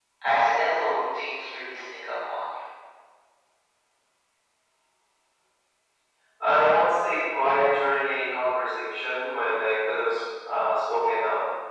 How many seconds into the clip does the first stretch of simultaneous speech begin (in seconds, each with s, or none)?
none